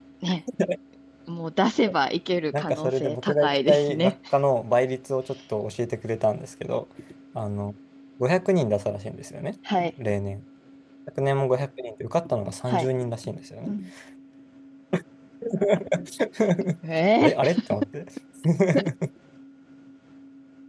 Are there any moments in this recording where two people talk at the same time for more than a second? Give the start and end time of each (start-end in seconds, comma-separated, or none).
2.5-4.1